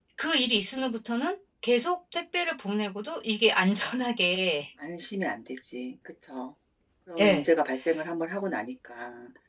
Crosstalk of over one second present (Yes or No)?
No